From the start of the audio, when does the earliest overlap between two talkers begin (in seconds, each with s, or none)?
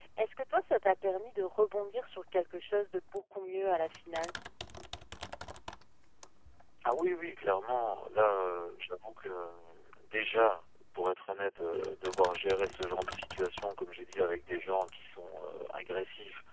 none